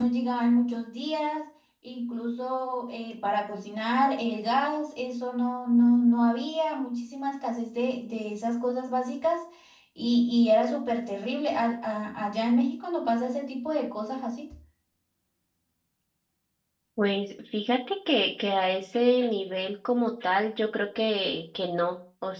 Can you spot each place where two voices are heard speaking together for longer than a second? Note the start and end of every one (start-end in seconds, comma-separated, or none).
none